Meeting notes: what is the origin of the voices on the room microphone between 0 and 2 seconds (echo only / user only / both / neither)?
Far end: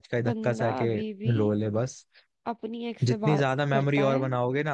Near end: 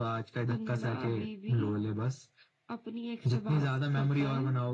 echo only